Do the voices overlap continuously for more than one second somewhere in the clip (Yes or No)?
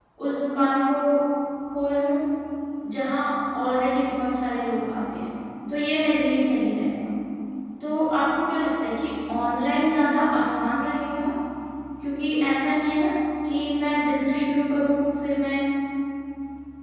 No